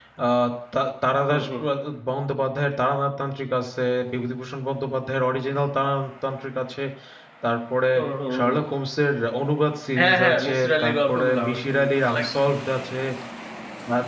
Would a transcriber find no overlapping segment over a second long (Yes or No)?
No